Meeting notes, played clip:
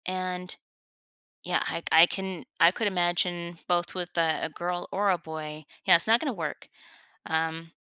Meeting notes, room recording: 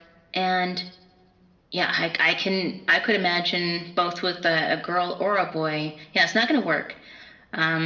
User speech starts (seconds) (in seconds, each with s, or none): none